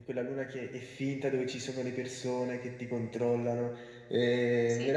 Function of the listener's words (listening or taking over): listening